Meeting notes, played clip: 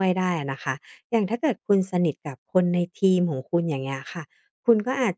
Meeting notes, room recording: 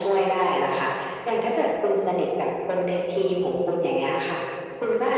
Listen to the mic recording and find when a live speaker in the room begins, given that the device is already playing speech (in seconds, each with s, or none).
none